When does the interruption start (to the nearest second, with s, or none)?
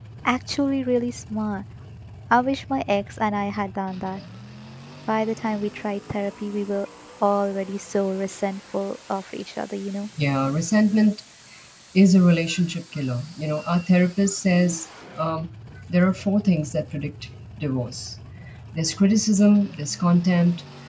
none